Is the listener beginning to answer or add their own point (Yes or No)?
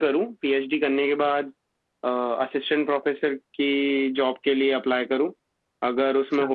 No